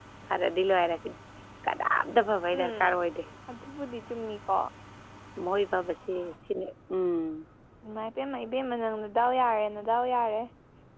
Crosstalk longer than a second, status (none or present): none